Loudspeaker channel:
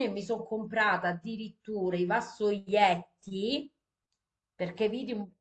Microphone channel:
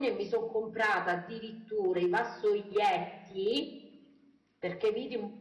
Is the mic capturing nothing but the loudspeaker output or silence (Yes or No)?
Yes